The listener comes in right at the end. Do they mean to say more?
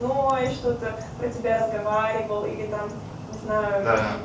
No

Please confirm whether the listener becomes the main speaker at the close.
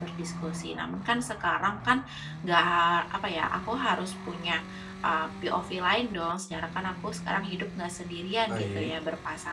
No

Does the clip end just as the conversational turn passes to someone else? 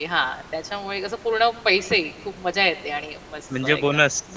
No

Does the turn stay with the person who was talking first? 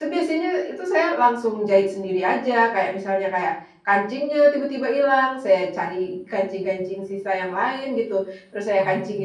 Yes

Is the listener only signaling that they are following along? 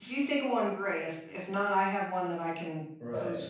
No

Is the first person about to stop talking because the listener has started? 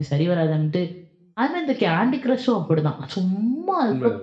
Yes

